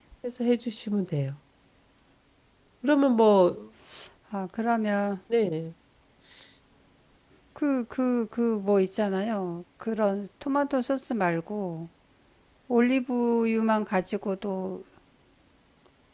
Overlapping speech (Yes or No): No